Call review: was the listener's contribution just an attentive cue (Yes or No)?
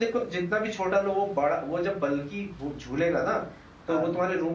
Yes